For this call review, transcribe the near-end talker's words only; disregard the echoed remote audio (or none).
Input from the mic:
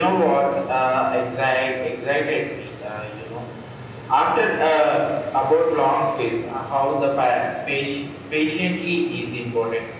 none